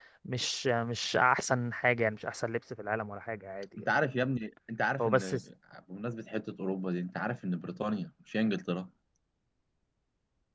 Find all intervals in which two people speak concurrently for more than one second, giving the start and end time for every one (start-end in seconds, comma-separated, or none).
none